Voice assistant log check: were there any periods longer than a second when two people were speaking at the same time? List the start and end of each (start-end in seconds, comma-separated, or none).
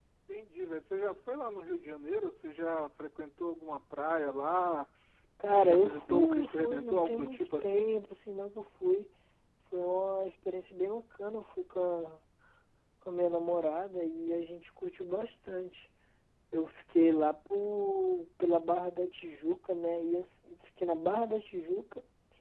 5.5-7.9